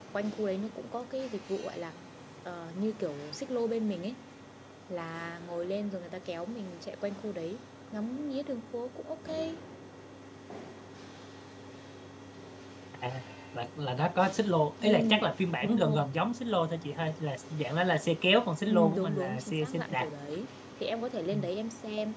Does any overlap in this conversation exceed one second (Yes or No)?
Yes